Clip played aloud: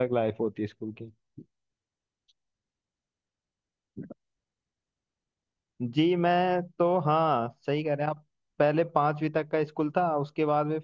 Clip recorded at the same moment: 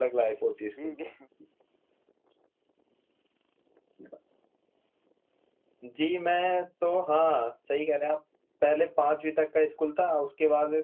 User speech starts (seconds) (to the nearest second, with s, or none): 1 s